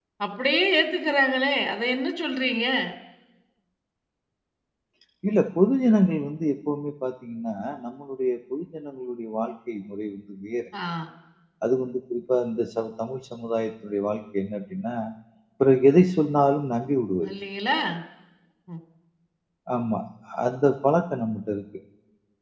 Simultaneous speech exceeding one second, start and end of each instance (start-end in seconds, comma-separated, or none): none